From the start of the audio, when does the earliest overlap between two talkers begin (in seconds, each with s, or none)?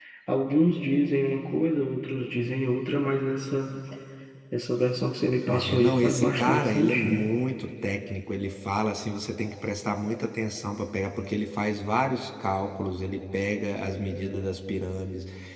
5.5 s